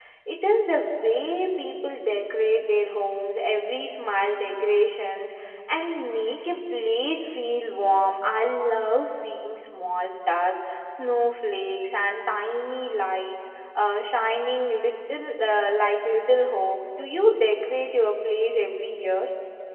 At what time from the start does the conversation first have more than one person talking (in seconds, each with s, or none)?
none